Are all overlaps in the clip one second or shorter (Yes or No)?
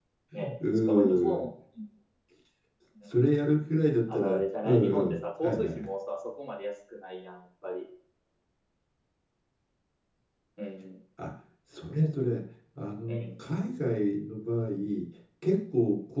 No